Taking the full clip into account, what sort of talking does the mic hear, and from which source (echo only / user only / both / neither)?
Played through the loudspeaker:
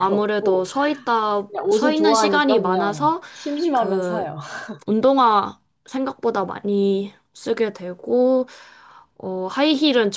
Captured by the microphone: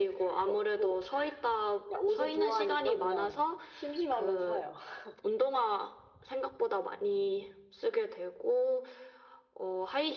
echo only